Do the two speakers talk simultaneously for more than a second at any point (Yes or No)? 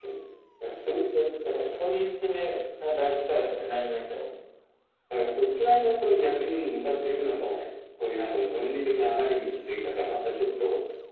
No